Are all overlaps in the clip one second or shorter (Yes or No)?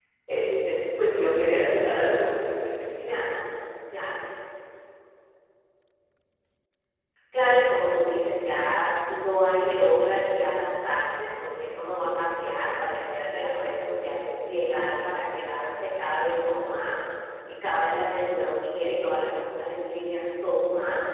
Yes